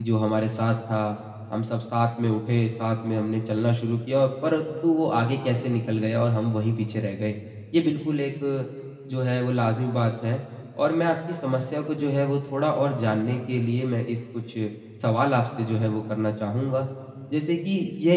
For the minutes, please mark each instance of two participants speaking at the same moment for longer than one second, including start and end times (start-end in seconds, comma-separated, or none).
none